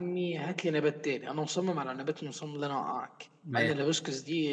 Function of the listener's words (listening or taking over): listening